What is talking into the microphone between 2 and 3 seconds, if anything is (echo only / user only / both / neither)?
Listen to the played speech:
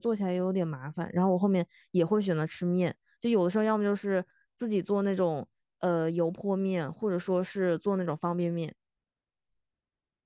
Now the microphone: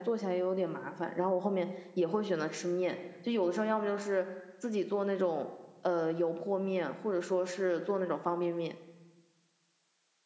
echo only